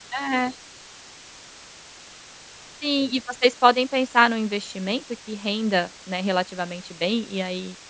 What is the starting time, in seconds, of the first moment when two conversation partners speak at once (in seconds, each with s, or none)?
none